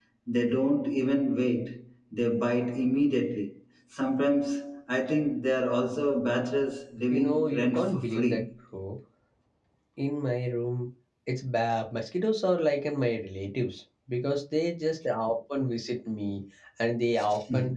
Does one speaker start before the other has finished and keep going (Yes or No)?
Yes